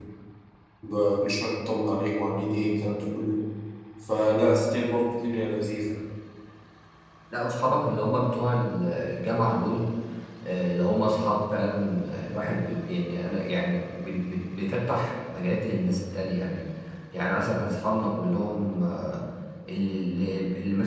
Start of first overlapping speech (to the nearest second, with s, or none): none